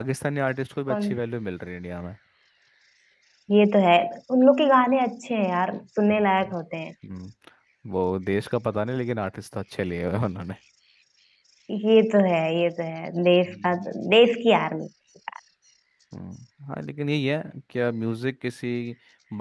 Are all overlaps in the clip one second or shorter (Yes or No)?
Yes